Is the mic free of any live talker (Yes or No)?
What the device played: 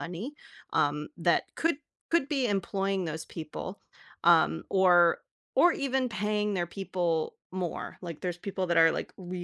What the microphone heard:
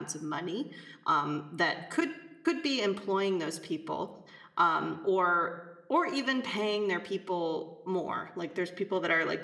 Yes